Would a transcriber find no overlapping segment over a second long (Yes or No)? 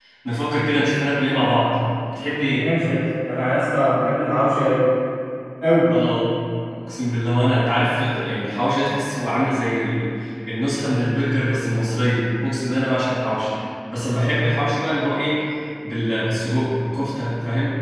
Yes